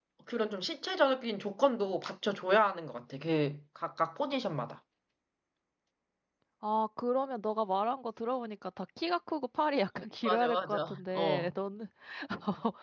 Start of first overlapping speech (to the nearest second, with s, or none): 10 s